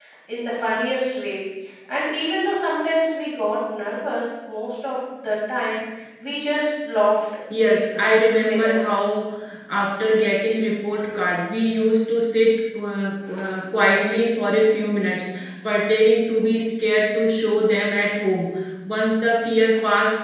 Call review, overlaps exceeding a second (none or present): present